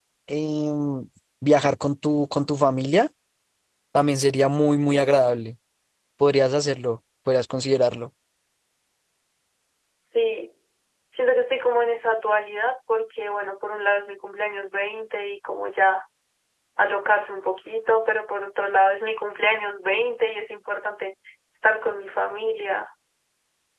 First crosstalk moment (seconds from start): none

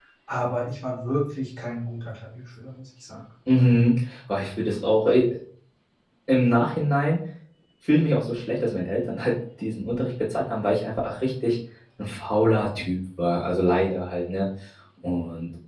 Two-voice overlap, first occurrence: none

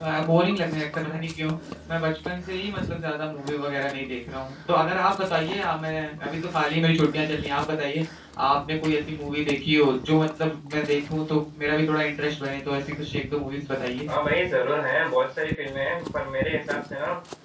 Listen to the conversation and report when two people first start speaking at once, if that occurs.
none

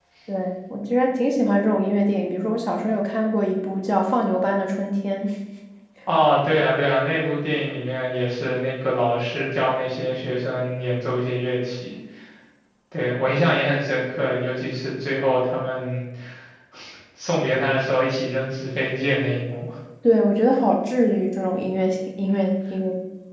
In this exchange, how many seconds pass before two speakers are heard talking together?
none

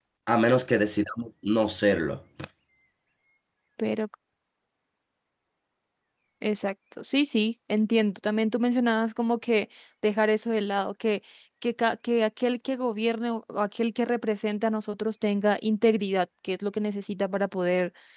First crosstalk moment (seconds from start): none

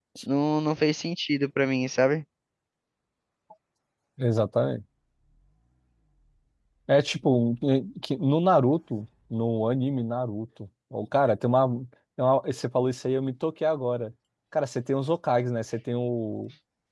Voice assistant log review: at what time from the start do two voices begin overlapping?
none

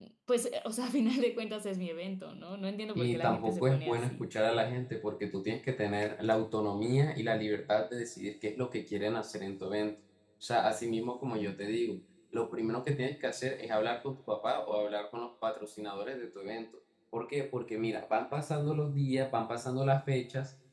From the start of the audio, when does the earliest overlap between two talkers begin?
3.0 s

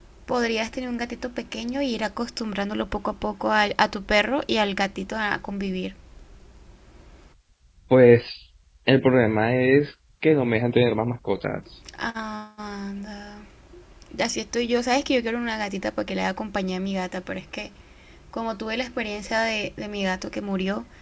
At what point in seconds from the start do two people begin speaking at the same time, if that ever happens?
none

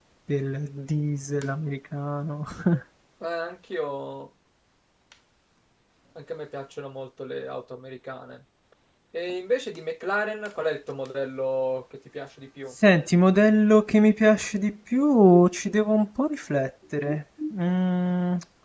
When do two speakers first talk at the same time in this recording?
none

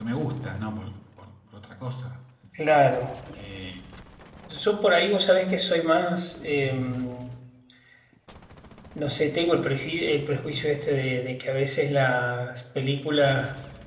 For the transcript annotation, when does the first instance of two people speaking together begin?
none

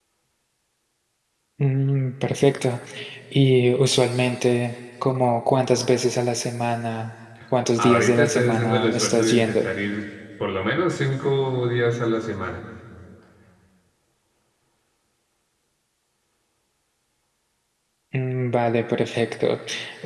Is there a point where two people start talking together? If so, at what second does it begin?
7.8 s

